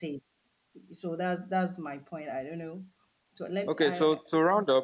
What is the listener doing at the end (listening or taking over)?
taking over